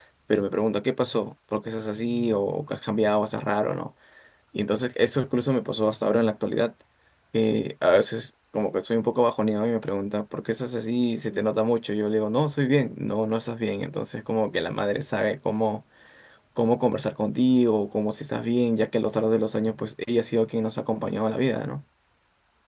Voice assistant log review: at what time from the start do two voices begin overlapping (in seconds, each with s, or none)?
none